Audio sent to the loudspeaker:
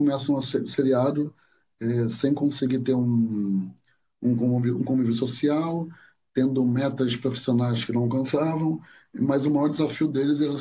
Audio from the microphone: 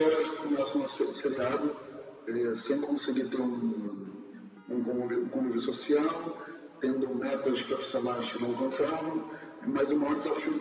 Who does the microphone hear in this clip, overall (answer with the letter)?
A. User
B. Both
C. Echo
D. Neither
C